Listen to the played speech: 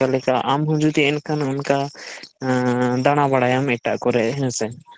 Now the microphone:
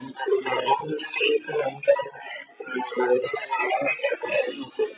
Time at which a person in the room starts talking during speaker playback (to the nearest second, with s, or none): none